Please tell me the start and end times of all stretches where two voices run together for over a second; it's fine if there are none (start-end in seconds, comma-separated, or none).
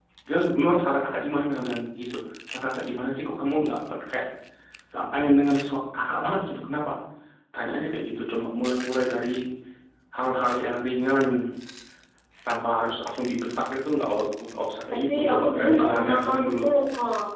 15.1-16.6